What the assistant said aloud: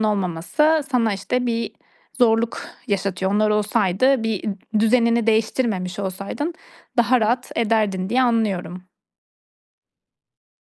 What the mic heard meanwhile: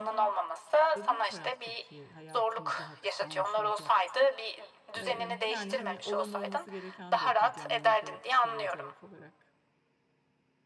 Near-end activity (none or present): present